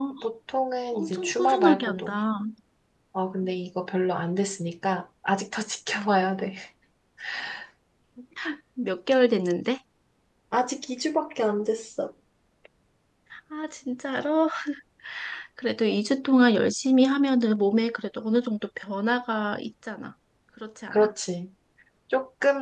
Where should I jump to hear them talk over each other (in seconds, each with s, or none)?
0.9 s